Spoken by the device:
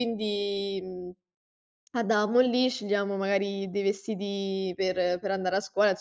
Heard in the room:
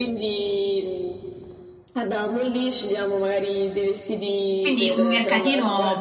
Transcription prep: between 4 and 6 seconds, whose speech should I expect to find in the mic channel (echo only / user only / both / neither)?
both